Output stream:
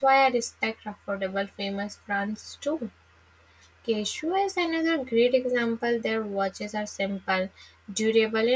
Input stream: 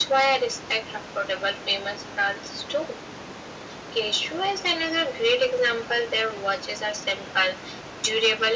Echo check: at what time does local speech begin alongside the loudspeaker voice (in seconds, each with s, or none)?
none